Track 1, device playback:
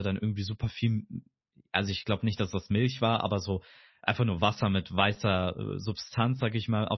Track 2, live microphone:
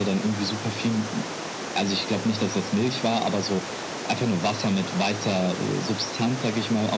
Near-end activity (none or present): none